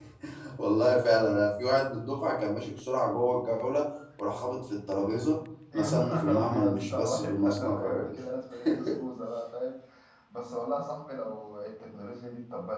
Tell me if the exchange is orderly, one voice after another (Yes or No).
No